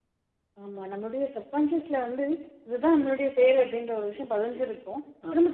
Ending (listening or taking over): listening